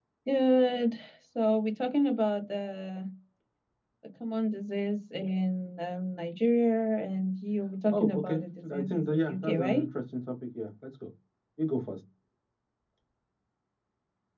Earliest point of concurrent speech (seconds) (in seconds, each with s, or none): 7.9 s